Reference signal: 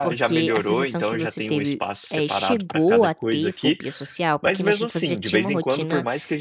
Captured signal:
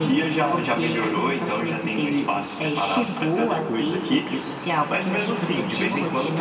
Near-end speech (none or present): none